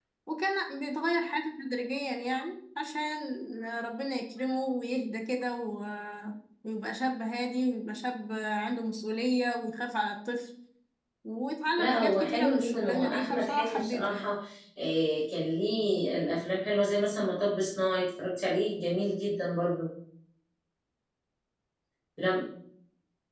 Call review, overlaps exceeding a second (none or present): present